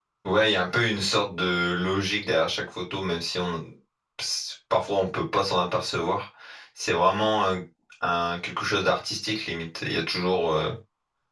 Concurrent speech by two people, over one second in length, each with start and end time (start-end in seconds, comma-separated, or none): none